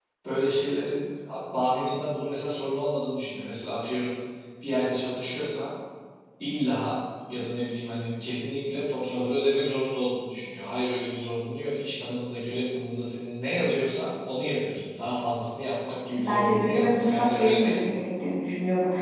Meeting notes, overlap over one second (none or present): present